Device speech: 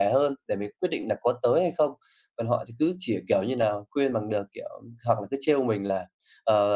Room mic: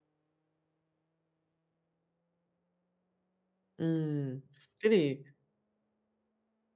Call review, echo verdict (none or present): none